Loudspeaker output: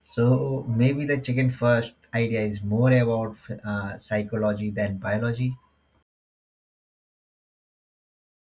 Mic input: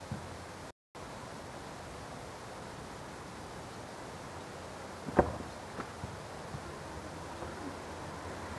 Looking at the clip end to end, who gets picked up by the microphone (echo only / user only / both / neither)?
neither